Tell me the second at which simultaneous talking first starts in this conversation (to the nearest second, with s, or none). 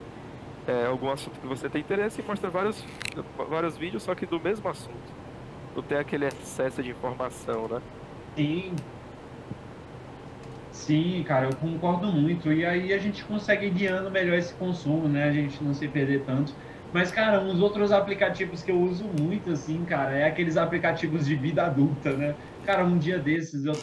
none